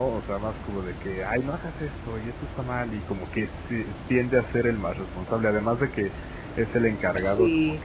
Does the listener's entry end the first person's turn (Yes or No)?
No